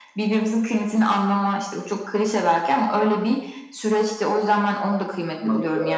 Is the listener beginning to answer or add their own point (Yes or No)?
No